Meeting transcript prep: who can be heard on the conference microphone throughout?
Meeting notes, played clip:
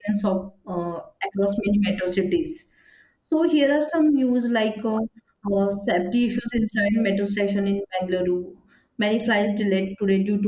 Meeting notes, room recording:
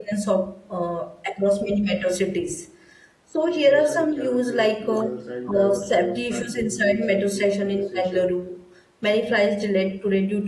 both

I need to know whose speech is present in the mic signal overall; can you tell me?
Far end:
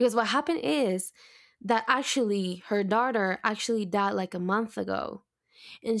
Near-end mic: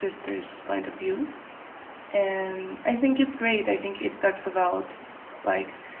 user only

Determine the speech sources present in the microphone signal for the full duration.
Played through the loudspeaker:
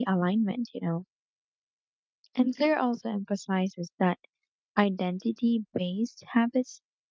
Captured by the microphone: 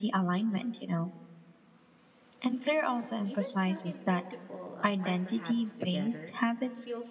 both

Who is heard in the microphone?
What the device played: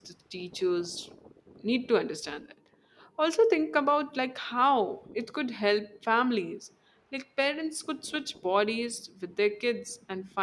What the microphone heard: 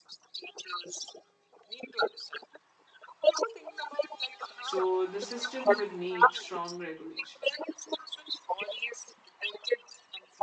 both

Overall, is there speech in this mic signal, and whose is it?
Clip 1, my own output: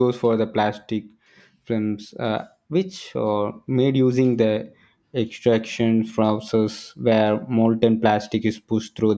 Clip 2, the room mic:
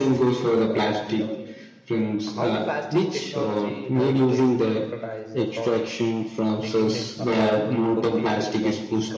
both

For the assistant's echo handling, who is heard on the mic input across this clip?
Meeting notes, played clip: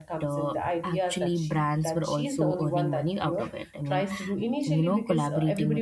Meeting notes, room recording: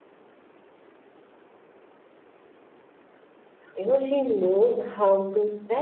user only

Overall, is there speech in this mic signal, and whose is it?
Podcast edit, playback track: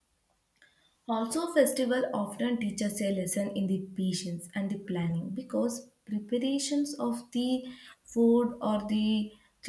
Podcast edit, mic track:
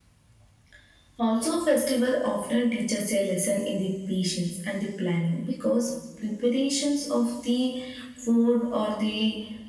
echo only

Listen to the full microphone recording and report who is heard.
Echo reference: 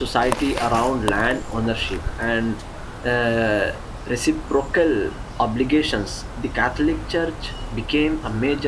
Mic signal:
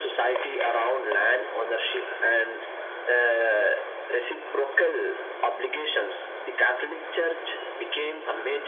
echo only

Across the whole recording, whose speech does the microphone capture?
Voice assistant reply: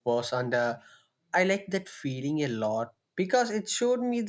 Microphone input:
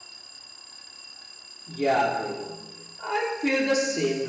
user only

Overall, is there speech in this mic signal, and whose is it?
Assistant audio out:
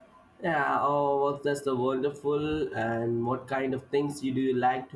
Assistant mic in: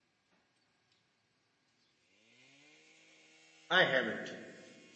user only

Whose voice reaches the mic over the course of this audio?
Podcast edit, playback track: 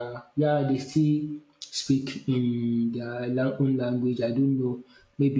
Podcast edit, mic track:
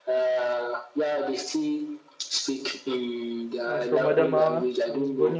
both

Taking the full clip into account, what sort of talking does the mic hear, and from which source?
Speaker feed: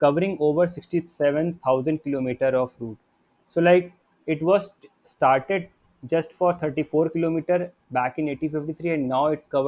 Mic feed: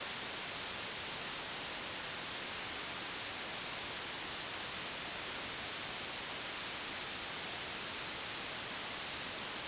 neither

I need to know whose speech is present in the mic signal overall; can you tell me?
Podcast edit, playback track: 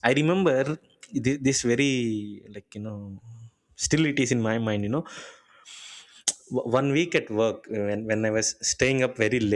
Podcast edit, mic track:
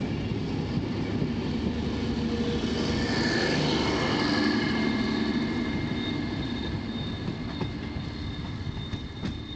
neither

